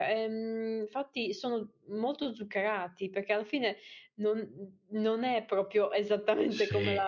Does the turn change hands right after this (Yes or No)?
Yes